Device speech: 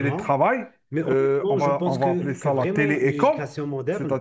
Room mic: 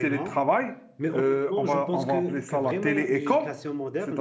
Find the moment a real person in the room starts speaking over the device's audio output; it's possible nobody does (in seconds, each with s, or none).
none